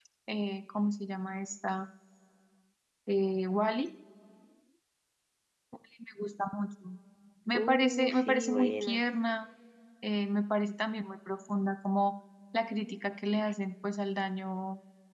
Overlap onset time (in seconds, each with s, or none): 7.5 s